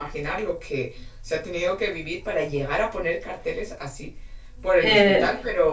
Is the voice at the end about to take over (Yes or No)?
No